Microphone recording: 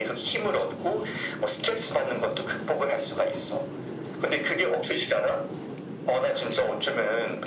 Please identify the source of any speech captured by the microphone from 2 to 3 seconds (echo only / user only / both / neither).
echo only